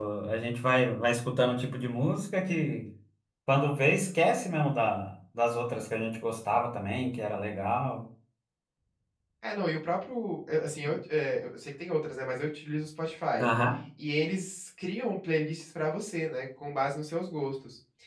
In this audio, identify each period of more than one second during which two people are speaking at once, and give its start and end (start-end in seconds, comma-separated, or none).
none